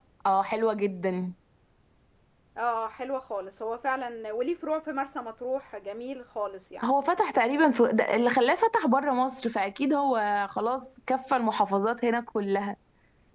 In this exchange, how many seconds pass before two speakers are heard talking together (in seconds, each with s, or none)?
none